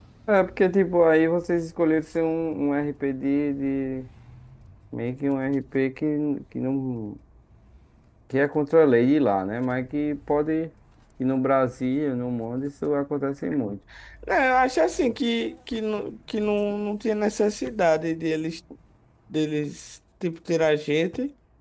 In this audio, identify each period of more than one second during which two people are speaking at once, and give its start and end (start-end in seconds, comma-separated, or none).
none